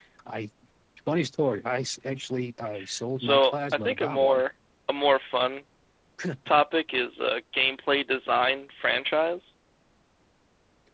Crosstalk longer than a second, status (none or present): present